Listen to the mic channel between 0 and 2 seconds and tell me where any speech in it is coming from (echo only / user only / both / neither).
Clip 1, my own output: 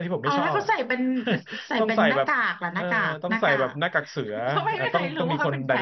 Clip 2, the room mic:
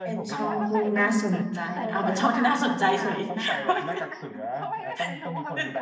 both